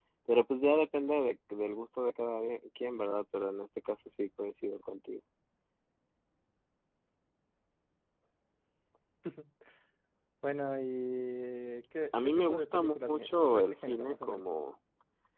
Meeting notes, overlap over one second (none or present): present